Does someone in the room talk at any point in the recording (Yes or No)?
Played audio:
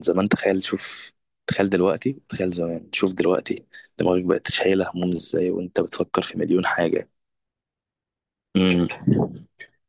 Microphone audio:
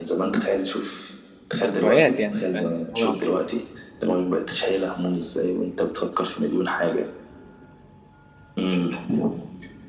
Yes